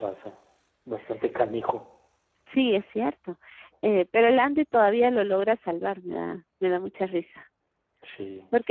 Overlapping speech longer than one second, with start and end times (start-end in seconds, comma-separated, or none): none